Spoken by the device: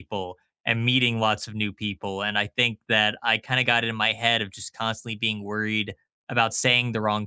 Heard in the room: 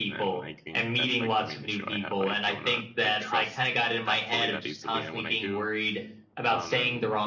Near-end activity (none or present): present